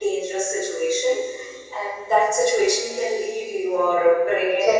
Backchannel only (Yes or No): No